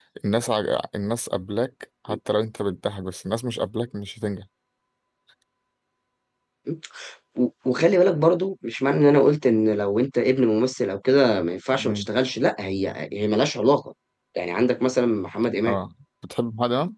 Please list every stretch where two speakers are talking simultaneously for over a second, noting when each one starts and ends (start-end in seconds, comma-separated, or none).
none